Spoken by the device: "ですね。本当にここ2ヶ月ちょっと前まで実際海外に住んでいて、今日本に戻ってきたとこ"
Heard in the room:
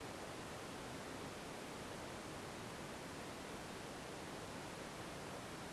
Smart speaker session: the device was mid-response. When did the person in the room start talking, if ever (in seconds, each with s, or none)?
none